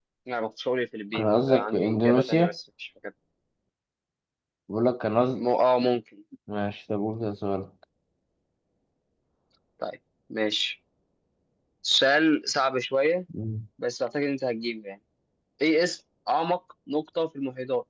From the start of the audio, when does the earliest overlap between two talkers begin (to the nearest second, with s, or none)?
1 s